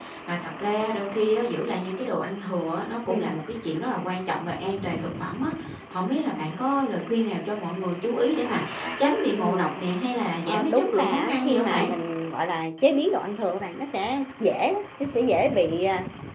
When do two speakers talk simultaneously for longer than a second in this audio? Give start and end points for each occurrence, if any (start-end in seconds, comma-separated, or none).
10.5-11.9